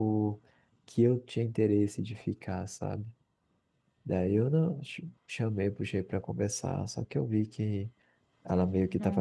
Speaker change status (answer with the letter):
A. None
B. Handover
A